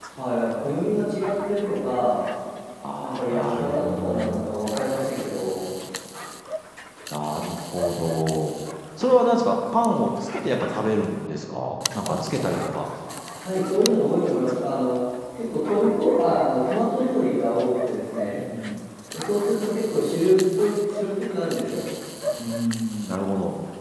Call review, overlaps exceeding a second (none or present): present